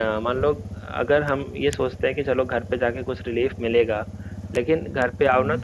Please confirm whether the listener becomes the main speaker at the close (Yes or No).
No